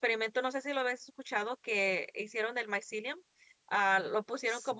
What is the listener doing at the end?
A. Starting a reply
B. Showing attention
B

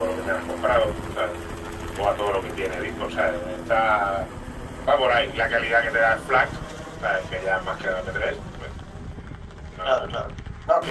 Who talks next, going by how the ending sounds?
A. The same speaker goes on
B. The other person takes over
B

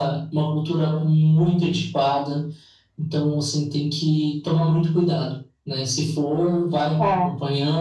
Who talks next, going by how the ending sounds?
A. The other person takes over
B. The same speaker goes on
B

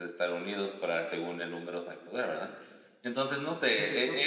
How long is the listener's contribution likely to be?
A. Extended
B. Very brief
B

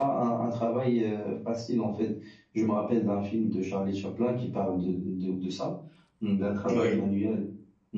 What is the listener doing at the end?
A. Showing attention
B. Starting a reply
A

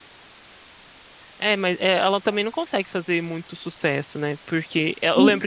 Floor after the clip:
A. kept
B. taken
A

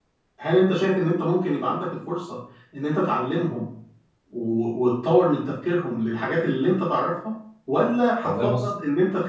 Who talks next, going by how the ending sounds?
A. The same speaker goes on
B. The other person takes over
A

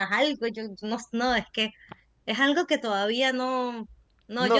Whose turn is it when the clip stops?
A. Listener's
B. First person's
A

